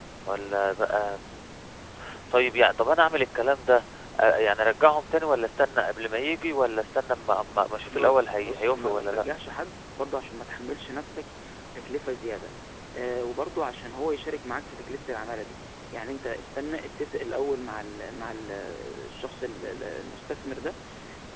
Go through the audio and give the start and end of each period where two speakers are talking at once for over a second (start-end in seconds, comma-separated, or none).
7.9-9.2